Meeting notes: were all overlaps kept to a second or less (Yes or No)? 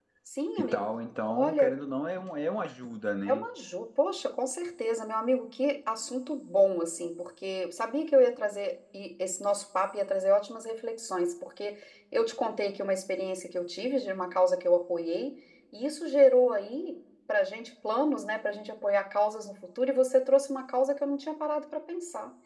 Yes